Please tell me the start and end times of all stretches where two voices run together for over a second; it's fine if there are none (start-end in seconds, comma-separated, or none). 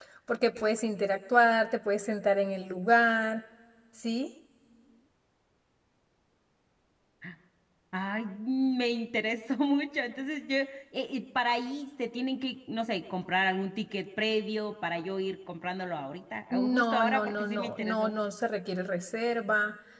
16.5-18.2